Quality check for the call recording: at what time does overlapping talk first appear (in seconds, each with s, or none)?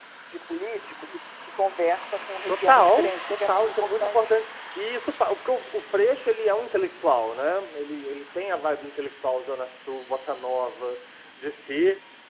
2.5 s